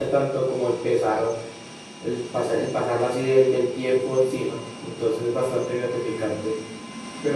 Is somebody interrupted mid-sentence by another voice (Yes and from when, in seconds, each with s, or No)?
No